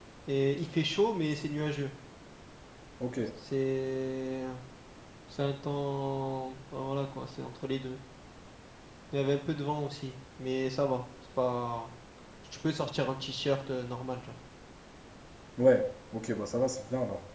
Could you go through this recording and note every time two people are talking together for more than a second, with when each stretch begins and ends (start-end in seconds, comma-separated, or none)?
none